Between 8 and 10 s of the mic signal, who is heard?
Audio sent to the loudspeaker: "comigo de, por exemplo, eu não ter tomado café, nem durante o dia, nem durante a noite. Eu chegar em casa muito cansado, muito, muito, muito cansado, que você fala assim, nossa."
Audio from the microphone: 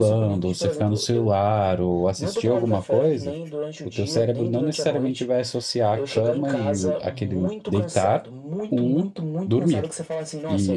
both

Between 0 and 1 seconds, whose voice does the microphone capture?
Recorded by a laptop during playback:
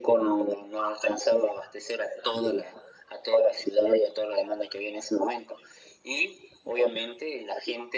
echo only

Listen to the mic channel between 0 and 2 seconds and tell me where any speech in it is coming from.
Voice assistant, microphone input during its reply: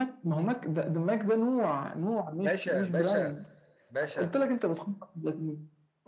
echo only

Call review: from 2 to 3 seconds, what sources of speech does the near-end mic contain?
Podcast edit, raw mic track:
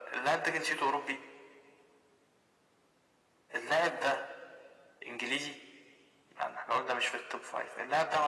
neither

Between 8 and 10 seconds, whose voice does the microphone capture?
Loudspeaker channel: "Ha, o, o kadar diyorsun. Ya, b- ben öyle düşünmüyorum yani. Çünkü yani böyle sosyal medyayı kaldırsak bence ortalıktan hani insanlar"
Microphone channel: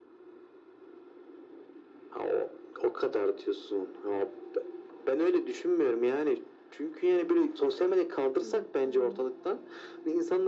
both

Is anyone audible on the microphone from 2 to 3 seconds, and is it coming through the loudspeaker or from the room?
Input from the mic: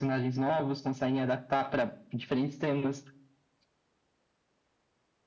echo only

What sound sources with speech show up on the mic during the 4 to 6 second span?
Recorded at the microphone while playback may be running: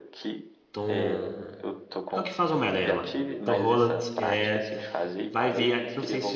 both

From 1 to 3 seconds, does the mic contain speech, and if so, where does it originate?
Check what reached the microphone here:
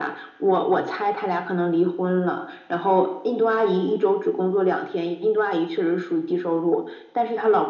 echo only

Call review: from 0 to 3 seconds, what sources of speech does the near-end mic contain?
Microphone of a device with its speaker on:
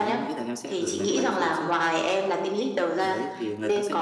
both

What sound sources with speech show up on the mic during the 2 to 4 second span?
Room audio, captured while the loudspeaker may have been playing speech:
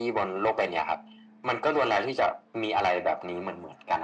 echo only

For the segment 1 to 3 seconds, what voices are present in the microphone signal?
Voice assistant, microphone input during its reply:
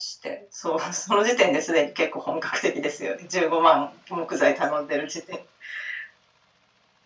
echo only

